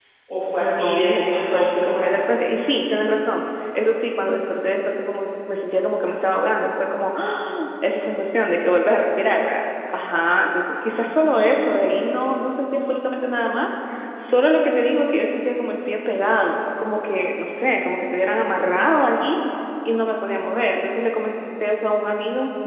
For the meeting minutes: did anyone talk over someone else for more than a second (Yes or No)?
Yes